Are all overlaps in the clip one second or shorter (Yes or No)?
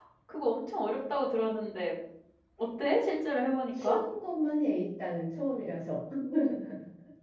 Yes